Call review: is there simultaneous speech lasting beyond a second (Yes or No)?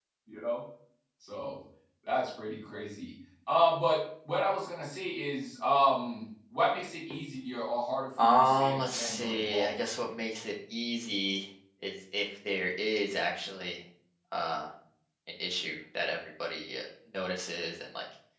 Yes